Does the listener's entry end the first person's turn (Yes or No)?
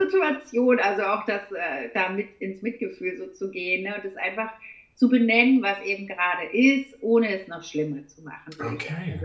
No